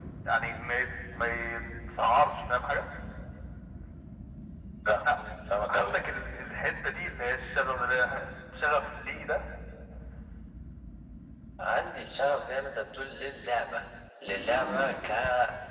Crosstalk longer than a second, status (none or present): none